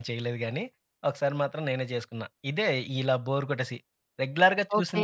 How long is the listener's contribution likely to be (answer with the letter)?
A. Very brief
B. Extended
A